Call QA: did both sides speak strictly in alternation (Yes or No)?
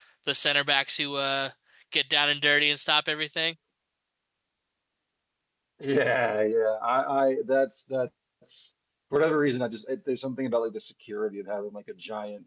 Yes